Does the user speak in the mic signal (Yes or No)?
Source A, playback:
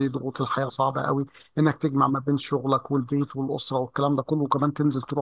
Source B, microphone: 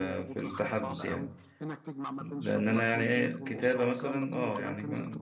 Yes